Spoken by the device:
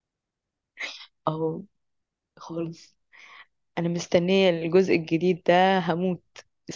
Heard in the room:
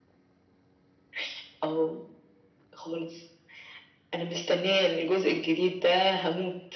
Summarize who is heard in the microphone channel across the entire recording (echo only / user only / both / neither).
echo only